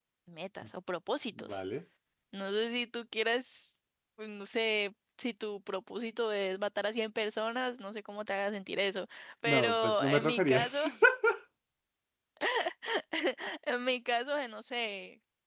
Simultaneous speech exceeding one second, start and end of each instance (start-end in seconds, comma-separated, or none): 9.4-10.8